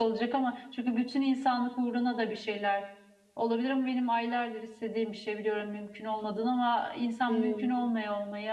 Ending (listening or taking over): listening